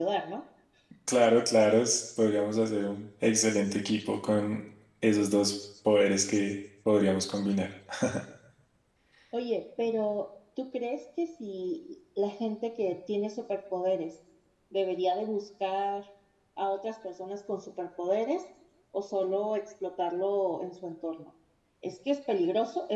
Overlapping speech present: No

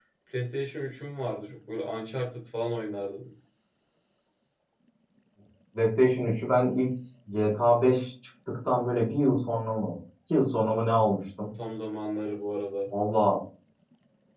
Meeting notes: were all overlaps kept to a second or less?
Yes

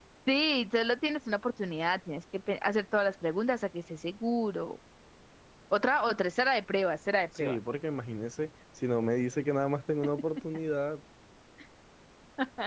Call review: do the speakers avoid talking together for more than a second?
Yes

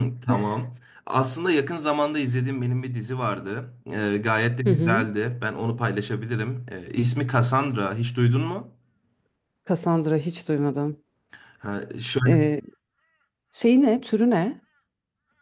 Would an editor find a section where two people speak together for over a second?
No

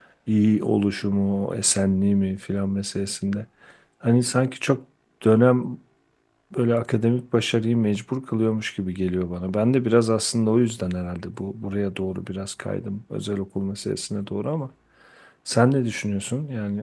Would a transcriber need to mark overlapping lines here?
No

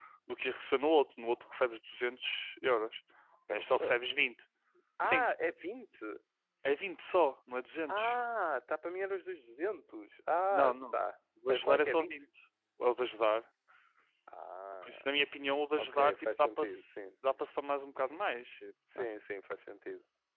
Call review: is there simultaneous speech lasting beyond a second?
Yes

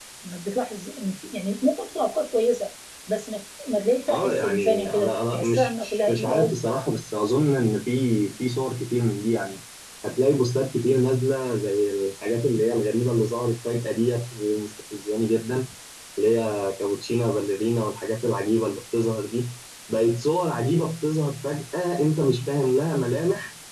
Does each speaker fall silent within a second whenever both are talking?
No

